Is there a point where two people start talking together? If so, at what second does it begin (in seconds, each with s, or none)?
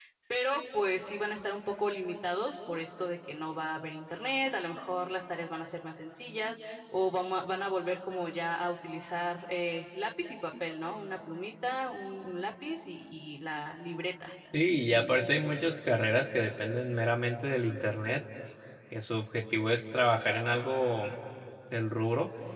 none